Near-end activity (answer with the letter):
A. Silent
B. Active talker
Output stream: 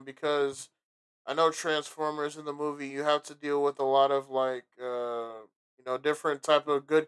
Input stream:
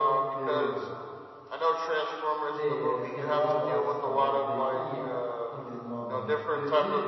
B